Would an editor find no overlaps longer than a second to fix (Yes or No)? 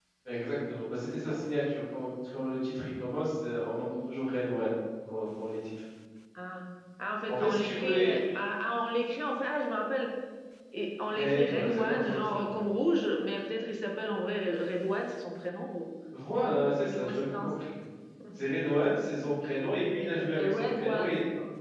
No